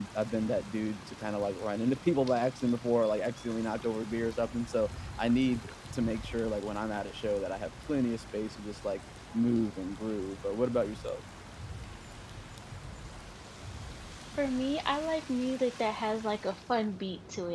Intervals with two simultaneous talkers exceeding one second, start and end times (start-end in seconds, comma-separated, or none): none